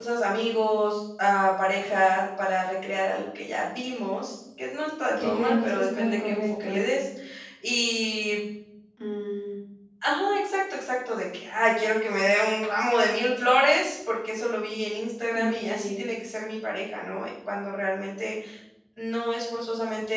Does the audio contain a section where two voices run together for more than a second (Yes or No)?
Yes